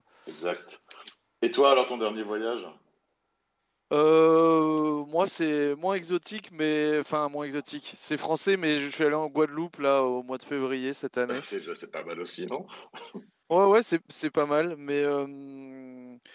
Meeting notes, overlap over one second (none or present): none